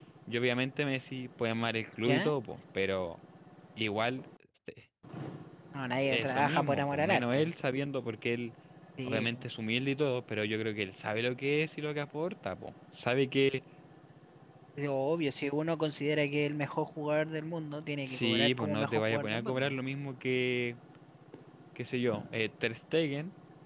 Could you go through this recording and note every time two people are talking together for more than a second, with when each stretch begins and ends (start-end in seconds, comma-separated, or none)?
6.0-7.5, 18.1-19.7